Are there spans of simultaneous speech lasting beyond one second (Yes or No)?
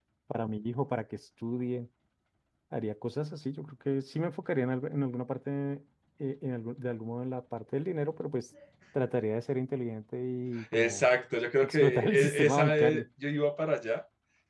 Yes